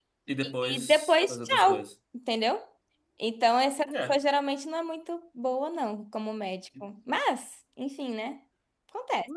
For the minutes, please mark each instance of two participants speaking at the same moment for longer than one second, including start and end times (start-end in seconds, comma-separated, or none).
0.6-1.8